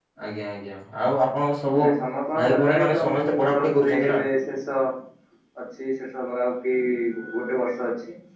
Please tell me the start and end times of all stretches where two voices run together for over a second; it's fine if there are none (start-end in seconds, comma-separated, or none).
2.4-4.2